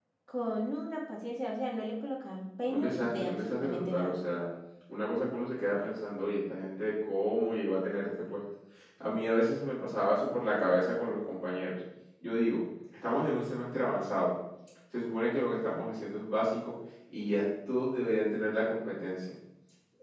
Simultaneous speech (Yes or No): Yes